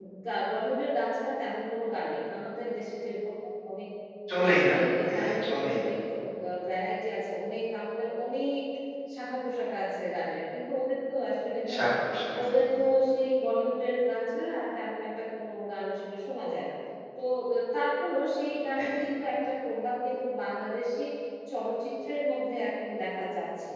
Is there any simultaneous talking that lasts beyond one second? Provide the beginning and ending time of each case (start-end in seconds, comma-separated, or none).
4.4-5.9